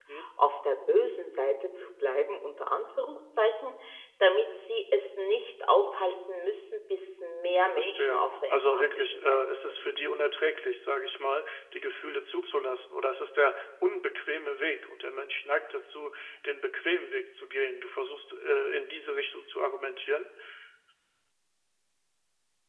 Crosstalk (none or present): present